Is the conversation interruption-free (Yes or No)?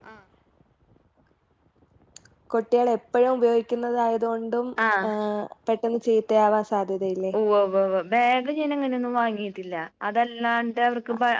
Yes